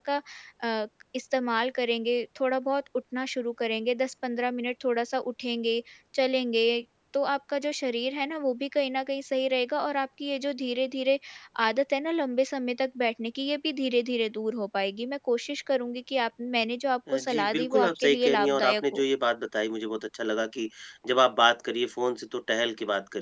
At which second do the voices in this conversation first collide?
17.1 s

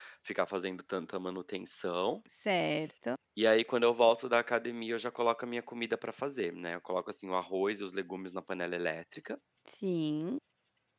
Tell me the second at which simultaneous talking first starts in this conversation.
none

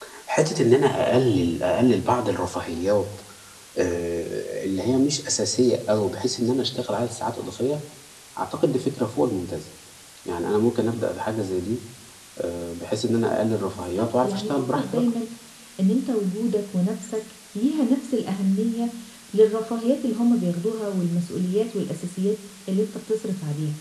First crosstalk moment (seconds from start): 13.8 s

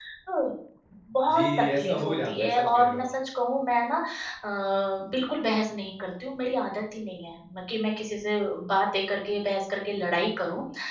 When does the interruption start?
1.3 s

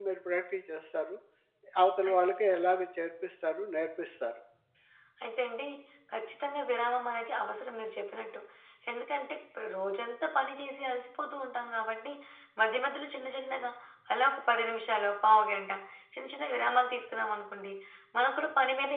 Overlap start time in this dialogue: none

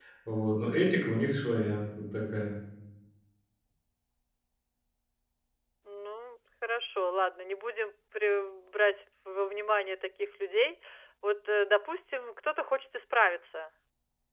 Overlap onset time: none

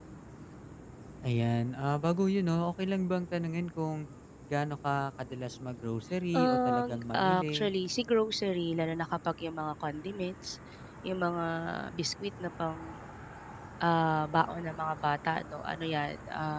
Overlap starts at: 6.3 s

